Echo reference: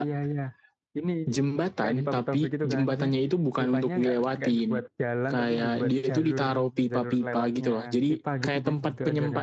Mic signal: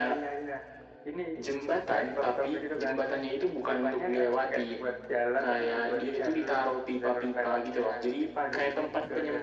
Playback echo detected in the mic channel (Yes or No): Yes